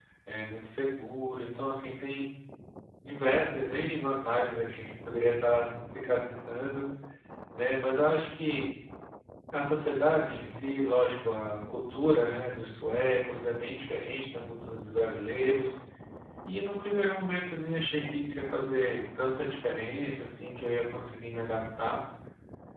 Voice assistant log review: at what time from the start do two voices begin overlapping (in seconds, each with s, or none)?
none